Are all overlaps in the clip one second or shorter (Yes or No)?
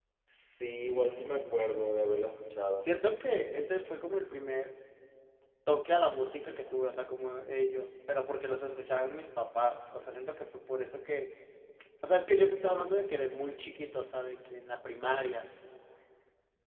Yes